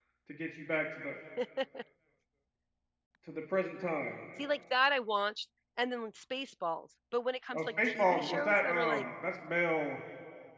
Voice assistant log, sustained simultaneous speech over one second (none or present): present